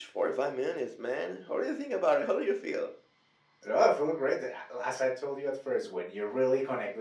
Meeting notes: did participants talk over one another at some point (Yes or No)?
No